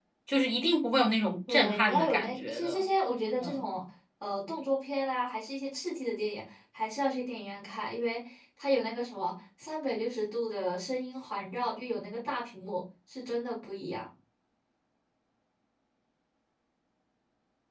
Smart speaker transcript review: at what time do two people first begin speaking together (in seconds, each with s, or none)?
1.5 s